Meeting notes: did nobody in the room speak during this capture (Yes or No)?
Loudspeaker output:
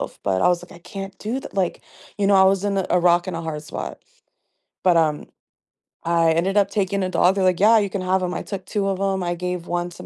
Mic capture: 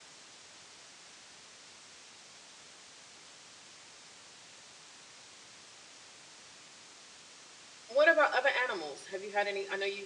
No